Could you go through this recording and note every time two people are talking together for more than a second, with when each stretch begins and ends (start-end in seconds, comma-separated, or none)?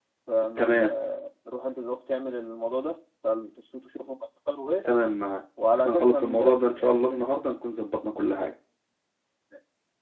5.8-7.3